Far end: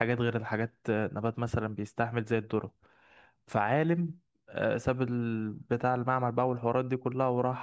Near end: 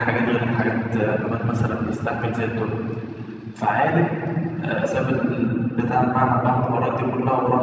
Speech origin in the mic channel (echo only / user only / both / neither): echo only